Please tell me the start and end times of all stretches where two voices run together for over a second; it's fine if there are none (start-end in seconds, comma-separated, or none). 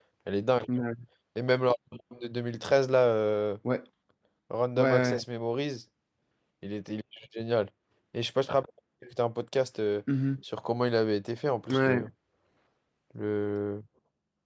none